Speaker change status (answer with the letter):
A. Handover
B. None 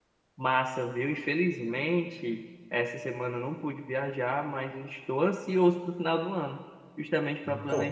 B